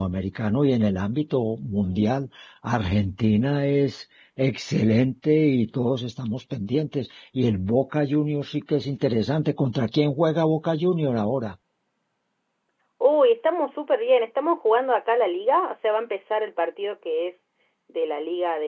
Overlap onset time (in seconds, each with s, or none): none